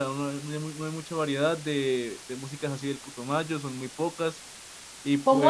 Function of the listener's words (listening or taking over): taking over